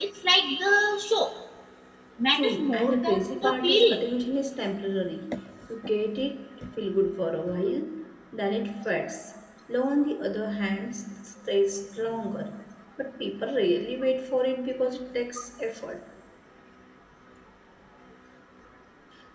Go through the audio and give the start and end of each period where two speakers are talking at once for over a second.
2.3-4.0

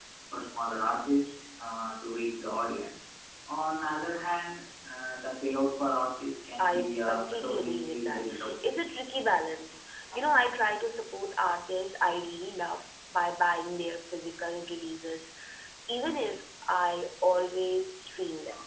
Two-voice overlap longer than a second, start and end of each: 6.6-8.5

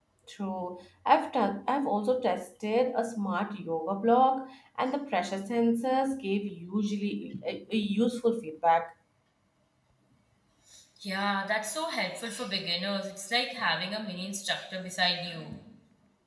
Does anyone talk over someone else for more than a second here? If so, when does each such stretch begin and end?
none

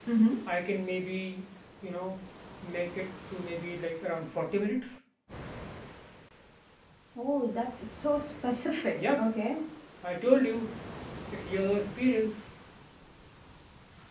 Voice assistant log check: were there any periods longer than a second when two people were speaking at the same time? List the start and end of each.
none

